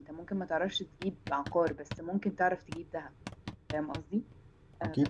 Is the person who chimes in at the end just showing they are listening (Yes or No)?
Yes